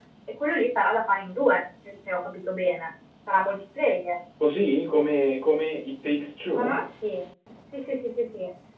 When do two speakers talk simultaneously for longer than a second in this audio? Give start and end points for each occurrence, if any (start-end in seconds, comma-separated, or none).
none